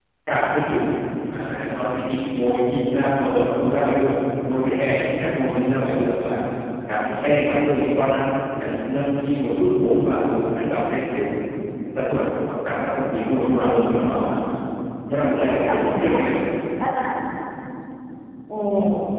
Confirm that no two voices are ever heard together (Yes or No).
No